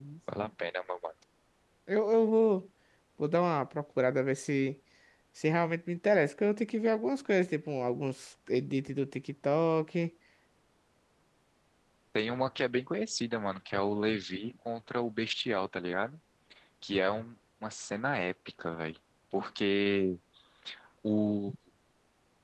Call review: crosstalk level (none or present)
none